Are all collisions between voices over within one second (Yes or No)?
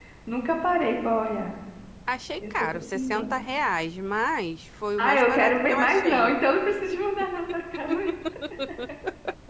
No